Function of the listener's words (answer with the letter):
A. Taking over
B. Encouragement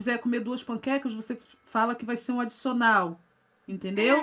A